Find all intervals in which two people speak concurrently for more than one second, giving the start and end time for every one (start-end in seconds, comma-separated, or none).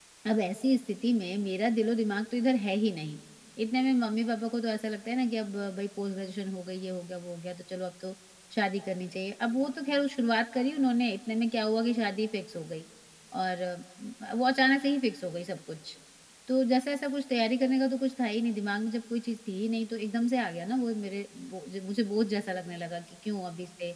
none